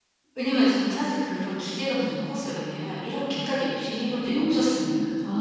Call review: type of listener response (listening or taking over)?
taking over